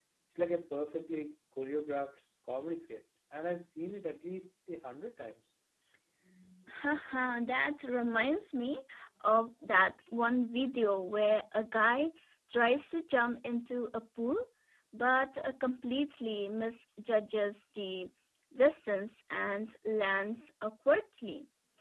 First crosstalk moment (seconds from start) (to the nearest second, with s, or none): none